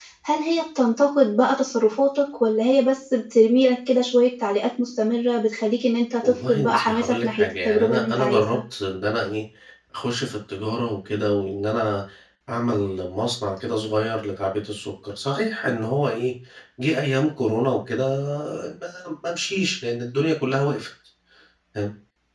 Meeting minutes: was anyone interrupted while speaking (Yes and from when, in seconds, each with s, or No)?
Yes, from 6.2 s